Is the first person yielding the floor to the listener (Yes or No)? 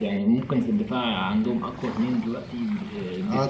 Yes